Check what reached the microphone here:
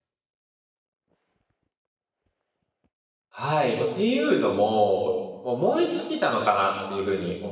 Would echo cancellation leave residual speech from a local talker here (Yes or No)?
Yes